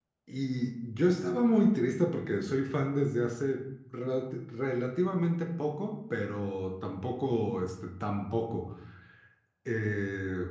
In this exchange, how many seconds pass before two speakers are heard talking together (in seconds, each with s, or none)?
none